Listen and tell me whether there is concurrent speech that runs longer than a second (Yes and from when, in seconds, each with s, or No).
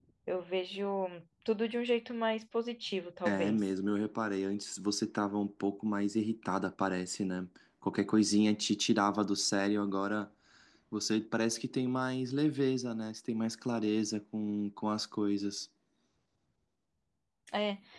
No